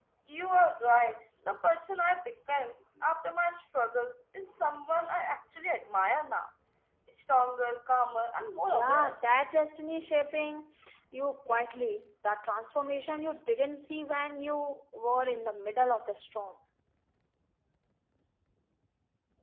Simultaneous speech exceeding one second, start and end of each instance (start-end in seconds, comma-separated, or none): none